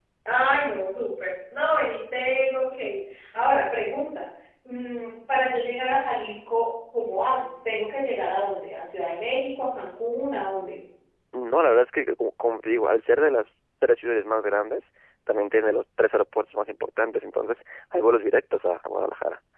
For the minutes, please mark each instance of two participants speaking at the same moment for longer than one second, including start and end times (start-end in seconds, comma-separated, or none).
none